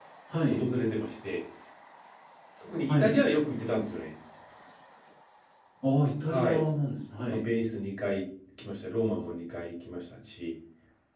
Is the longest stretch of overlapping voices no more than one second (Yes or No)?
Yes